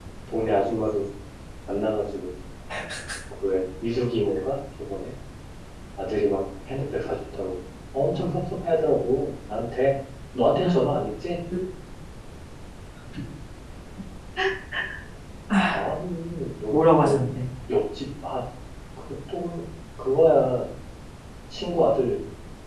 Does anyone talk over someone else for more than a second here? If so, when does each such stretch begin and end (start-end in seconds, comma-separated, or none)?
none